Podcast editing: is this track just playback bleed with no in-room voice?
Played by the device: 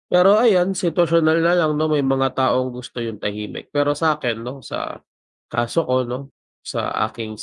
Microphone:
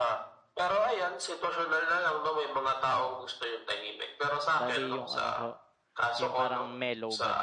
No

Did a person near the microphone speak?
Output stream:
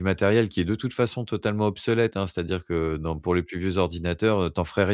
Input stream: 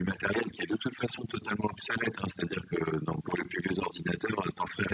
No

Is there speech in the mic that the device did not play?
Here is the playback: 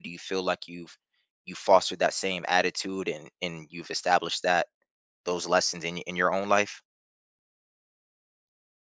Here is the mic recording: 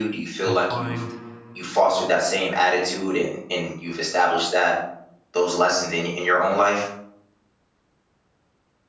Yes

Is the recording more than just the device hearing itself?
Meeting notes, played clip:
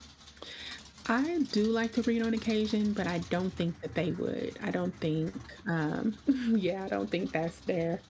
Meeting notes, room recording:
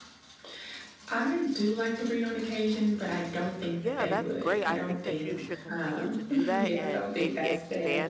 Yes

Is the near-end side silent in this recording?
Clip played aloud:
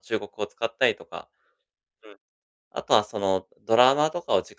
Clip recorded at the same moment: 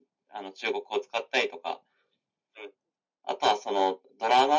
Yes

